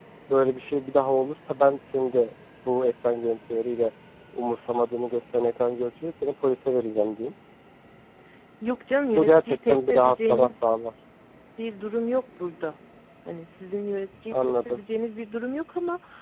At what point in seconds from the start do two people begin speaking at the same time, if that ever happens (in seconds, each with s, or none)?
9.1 s